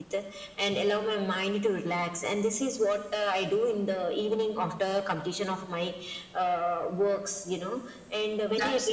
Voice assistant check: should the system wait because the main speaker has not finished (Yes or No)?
Yes